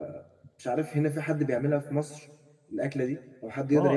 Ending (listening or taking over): taking over